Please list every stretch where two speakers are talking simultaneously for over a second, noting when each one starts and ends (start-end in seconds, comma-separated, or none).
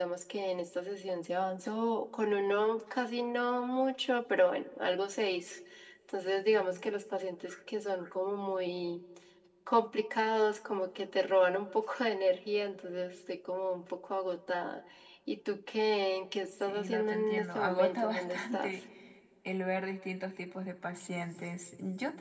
16.7-18.7